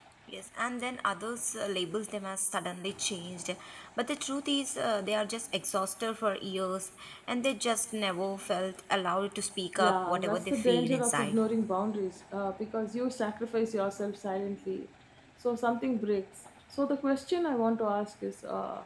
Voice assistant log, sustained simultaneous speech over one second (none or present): present